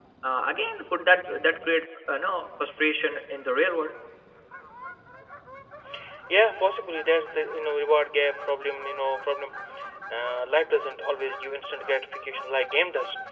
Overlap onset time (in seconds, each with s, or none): none